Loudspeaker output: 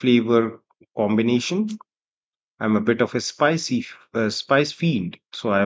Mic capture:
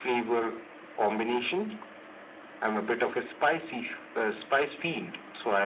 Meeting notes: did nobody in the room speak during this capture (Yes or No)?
Yes